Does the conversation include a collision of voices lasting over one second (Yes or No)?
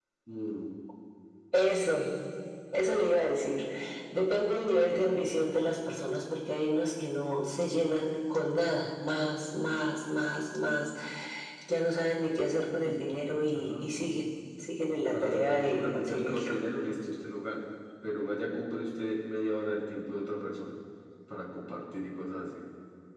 Yes